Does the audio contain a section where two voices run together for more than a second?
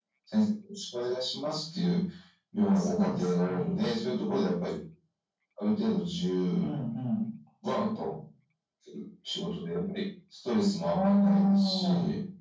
Yes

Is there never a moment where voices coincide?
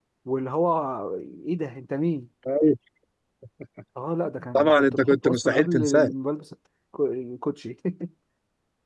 No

